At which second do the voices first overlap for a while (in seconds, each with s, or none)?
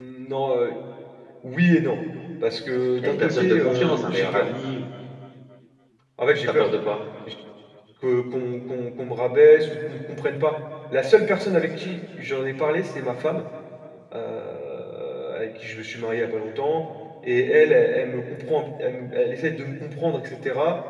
3.0 s